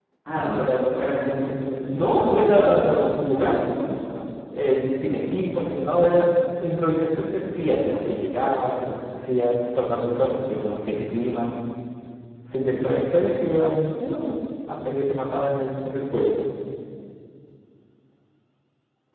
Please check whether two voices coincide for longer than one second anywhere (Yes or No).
Yes